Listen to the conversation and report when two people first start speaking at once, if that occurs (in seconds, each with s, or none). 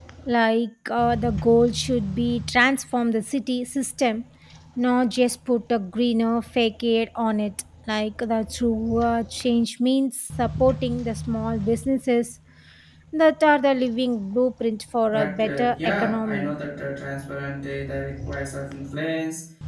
15.1 s